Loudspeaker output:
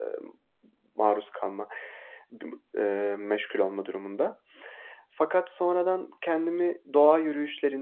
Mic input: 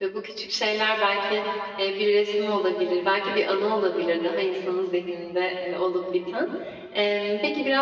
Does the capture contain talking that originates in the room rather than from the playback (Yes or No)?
Yes